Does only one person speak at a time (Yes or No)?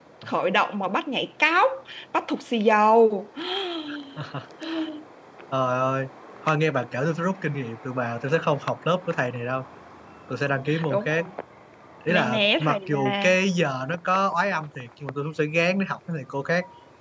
No